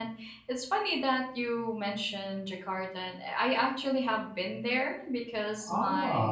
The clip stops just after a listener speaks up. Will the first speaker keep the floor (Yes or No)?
Yes